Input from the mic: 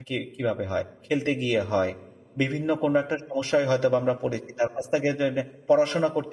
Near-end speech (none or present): present